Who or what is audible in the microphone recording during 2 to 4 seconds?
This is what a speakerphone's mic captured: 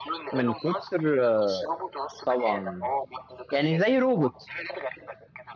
both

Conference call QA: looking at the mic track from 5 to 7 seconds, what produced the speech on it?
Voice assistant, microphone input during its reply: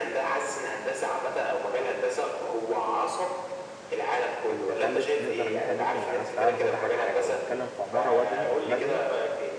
both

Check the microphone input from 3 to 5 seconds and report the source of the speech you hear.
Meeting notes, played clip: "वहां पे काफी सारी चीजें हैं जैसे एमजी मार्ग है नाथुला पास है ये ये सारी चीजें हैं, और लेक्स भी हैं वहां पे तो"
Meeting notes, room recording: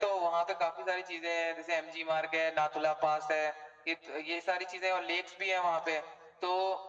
echo only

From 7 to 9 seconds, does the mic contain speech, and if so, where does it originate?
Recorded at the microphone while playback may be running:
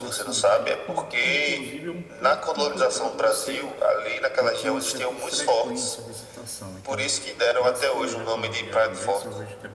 both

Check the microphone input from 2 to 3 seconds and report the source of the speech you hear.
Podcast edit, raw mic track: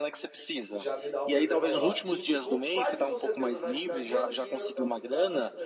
both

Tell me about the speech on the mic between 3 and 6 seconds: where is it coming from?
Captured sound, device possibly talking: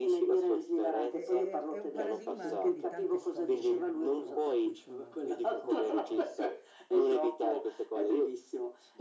both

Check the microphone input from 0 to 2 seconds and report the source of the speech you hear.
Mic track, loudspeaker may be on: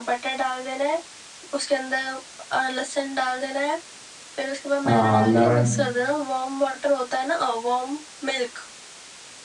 echo only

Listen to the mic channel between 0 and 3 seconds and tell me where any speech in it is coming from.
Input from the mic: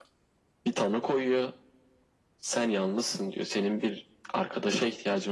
echo only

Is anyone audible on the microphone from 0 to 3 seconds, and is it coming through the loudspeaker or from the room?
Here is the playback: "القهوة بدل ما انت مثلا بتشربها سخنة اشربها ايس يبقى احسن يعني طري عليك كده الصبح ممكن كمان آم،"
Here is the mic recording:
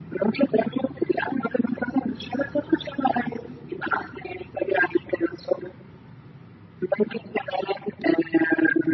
echo only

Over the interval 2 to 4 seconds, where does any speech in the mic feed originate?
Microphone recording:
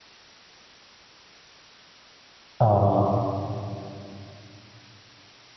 user only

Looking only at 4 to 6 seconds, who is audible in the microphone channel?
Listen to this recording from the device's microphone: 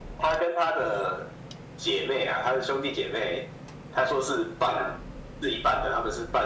echo only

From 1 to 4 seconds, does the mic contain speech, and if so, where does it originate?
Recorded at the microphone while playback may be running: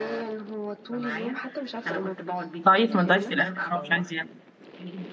both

